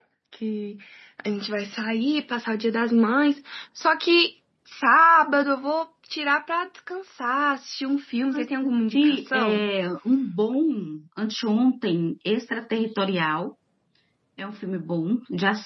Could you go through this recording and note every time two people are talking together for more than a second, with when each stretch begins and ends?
8.3-9.7

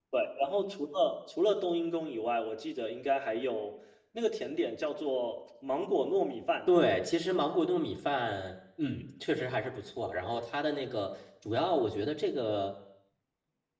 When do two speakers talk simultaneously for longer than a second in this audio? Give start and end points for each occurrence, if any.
none

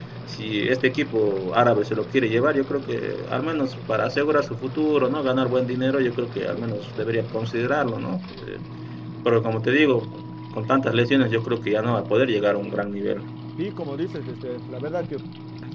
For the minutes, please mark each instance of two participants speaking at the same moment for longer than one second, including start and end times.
none

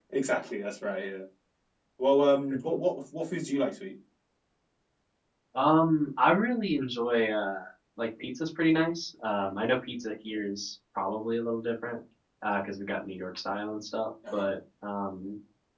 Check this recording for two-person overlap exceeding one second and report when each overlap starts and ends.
none

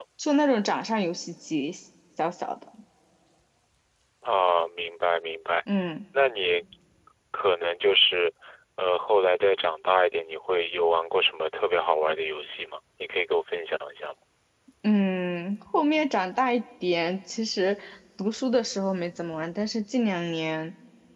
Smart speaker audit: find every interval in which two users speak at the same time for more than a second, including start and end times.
none

